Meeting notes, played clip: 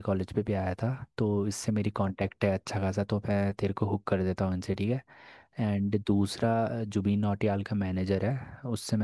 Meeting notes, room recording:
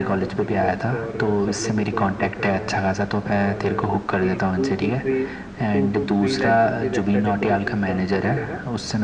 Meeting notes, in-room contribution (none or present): present